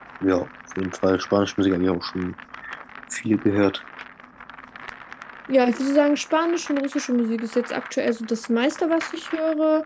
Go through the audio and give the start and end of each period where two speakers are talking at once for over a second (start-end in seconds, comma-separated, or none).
none